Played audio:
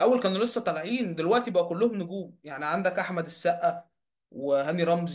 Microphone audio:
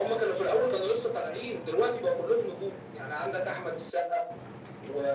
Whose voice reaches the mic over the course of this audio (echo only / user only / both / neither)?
echo only